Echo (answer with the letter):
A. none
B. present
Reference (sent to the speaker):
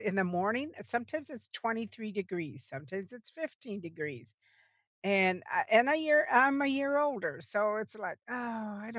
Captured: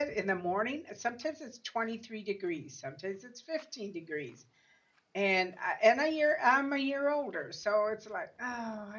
B